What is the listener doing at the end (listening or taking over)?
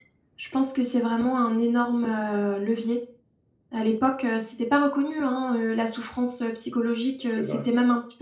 listening